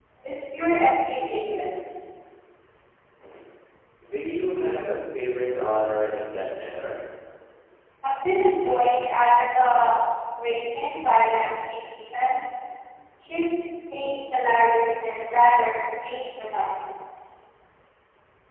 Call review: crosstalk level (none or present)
none